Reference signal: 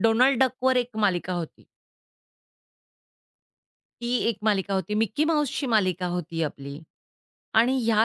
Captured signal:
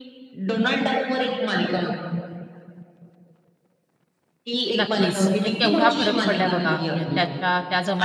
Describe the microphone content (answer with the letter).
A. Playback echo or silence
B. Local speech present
B